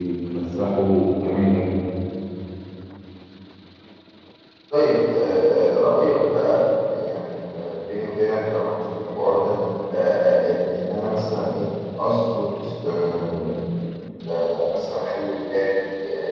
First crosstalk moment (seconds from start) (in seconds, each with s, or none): none